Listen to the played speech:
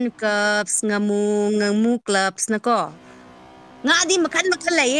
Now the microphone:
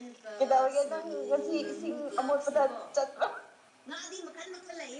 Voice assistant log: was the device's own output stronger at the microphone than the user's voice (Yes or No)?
No